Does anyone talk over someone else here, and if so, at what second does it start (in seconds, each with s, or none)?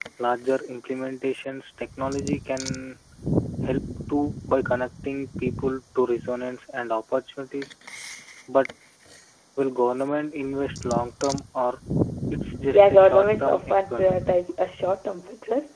12.7 s